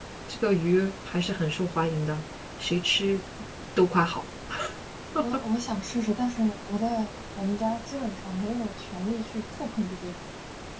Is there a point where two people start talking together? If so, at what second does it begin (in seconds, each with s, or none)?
none